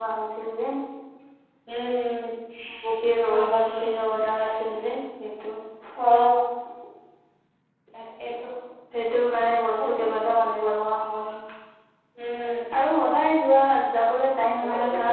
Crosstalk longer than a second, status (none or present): none